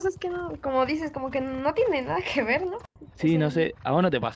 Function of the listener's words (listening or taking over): taking over